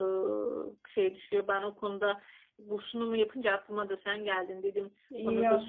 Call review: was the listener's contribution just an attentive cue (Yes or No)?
No